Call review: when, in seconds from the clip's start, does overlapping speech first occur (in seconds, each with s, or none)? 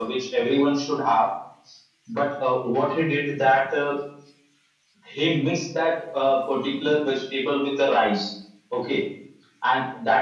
none